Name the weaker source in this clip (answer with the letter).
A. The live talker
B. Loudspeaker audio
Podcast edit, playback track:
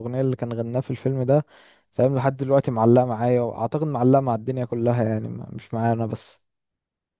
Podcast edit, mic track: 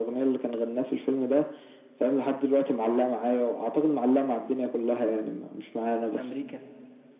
A